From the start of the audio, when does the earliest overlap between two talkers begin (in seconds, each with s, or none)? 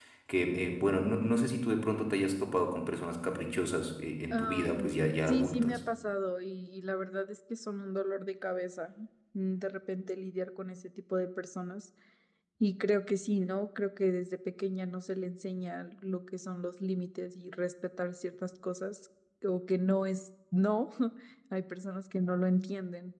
4.3 s